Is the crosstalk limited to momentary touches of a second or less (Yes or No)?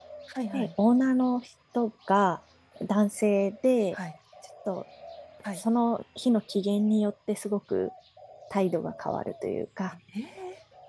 Yes